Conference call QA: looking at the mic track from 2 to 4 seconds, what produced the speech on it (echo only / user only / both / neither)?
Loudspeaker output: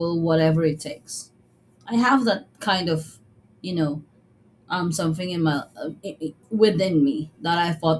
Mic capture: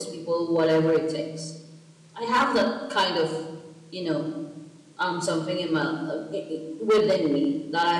echo only